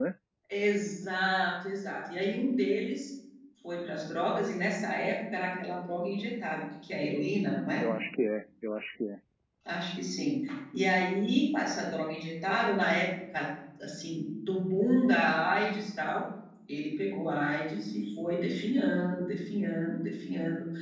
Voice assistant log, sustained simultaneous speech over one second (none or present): none